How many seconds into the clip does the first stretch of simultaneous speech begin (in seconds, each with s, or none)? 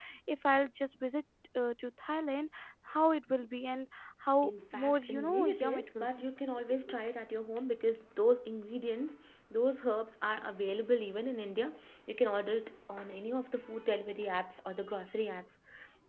4.4 s